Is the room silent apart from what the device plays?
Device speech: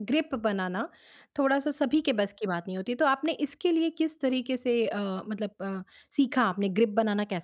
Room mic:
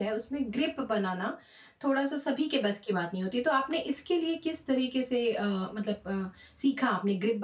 Yes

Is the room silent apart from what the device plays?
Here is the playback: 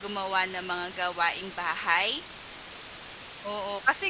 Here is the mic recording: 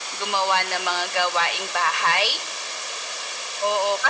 Yes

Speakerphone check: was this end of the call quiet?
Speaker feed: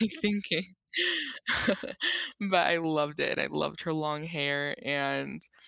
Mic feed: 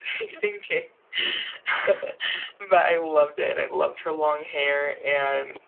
Yes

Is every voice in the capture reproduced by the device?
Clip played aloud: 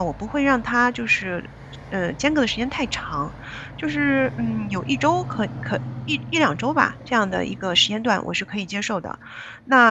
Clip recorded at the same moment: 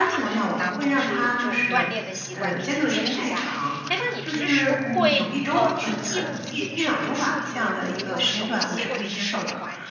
No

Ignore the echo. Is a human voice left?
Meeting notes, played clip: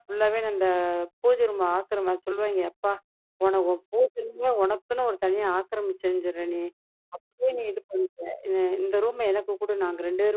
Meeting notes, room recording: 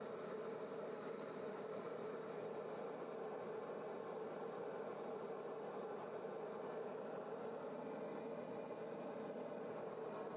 No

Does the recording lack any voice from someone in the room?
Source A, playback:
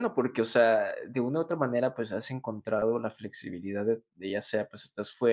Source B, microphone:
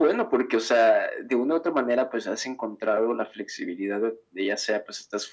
Yes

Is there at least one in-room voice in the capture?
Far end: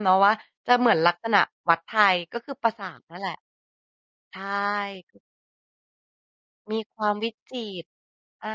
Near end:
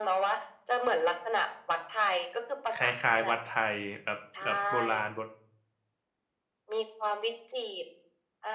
Yes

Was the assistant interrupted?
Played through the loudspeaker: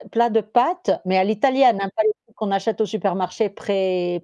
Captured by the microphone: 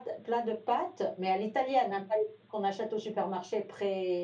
No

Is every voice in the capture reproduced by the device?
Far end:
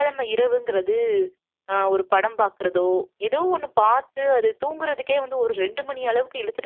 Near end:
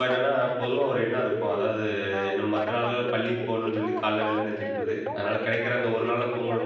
No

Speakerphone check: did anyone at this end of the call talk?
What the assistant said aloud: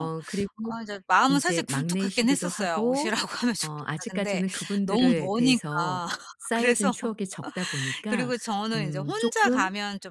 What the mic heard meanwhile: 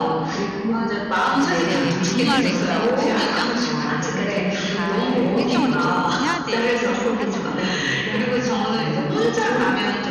Yes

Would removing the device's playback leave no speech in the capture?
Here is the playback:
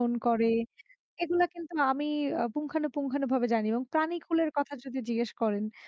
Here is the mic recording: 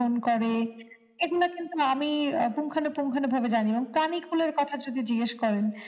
Yes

